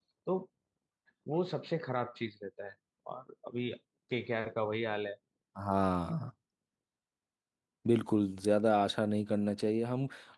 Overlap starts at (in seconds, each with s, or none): none